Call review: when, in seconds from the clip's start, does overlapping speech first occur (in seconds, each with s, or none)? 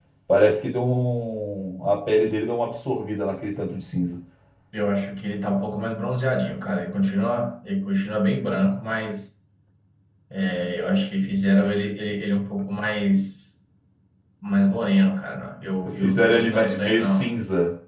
16.0 s